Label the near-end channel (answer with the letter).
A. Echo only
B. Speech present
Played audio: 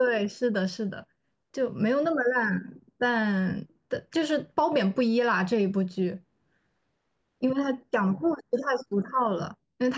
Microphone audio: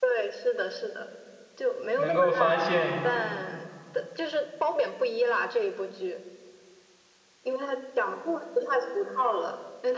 B